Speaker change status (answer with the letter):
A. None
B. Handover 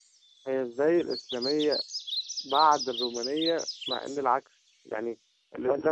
A